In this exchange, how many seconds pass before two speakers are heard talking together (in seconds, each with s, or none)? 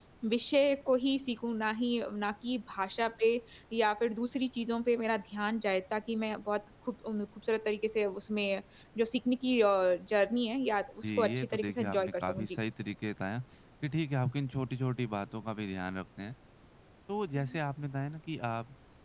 11.0 s